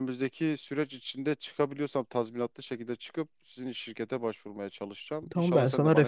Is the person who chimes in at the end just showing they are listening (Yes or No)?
No